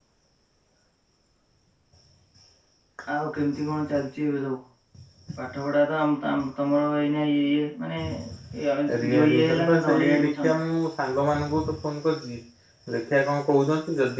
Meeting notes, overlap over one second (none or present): present